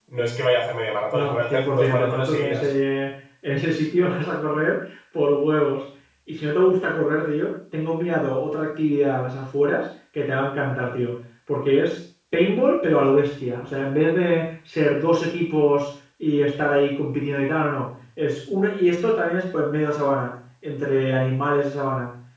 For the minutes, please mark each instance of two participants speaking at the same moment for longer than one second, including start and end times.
1.1-2.7

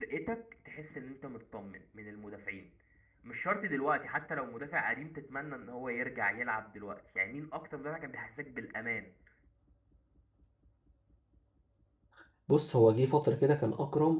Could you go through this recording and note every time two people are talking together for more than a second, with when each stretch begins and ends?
none

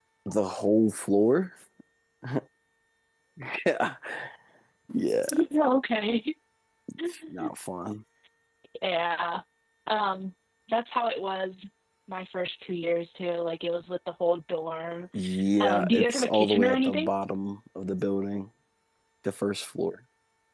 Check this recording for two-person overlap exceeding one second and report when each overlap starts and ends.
15.6-17.1

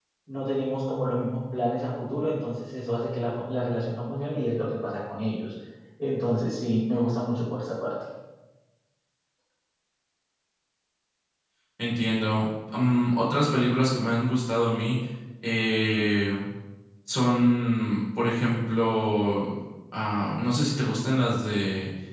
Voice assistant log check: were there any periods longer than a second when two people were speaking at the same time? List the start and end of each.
none

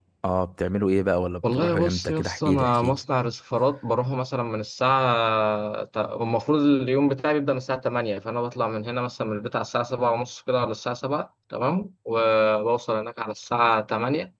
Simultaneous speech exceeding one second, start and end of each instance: 1.5-3.0

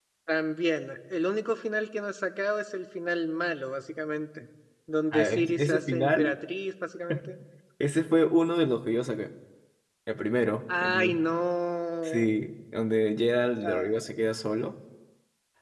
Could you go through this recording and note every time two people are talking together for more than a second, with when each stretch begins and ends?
5.1-6.3

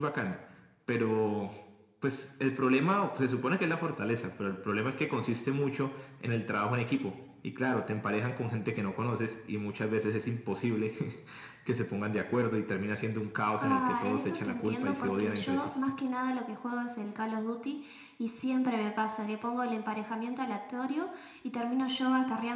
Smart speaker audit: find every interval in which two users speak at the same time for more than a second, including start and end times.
13.6-15.7

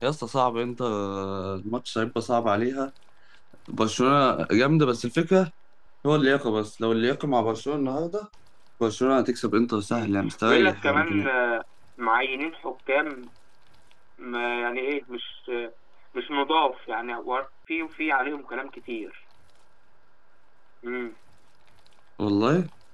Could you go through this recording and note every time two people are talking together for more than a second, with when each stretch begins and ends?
9.9-11.3

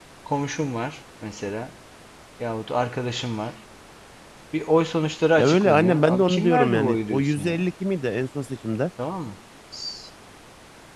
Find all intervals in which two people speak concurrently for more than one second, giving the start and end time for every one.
5.4-7.6

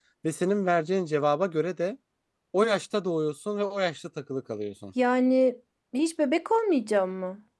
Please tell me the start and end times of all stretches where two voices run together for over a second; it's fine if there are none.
none

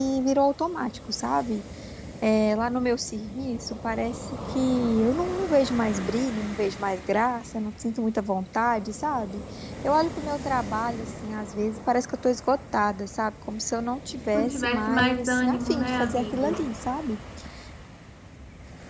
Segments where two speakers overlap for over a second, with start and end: 14.3-16.5

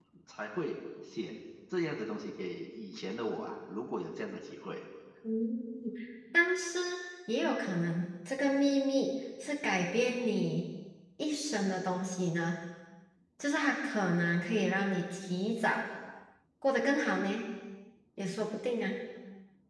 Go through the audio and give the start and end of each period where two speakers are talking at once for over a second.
none

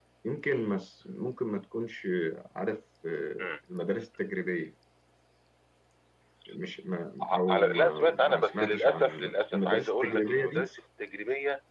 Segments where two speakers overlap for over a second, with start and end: 7.2-10.6

